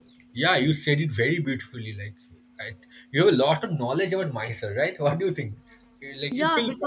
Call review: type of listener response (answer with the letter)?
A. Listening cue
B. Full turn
B